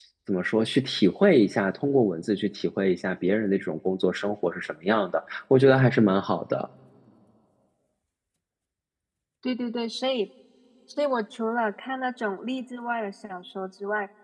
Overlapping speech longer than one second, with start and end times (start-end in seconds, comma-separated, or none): none